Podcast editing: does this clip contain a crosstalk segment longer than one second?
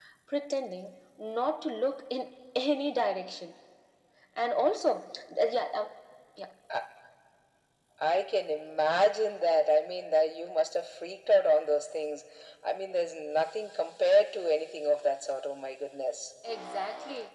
No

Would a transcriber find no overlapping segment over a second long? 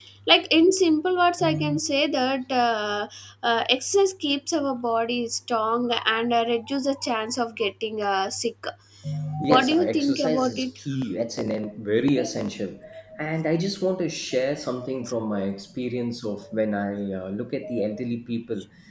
No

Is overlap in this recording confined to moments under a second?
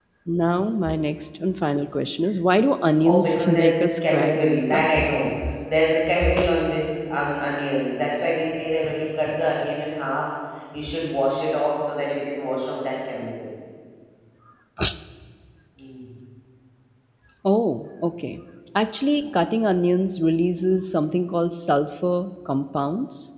No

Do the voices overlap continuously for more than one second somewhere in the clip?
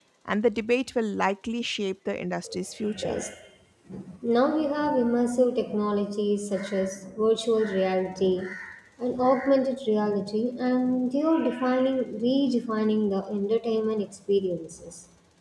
No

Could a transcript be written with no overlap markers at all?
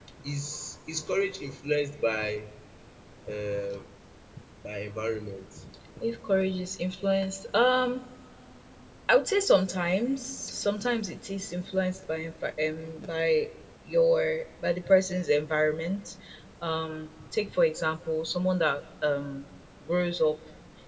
Yes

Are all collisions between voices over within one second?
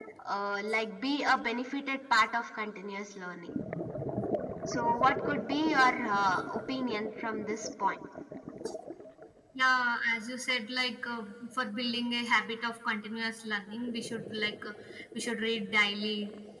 Yes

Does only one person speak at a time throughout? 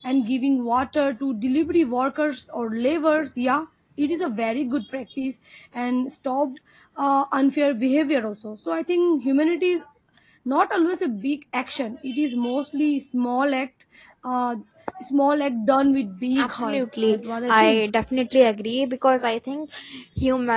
No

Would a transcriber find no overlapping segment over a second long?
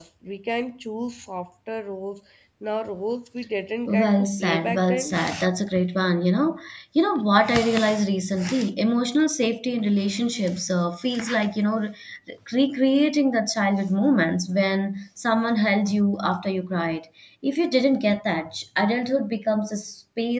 No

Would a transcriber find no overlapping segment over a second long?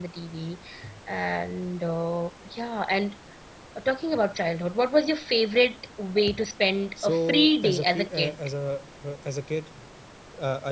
No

